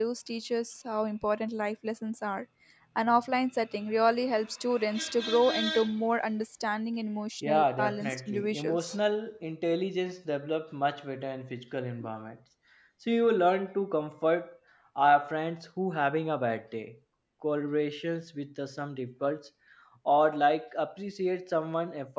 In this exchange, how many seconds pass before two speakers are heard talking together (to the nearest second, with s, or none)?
7 s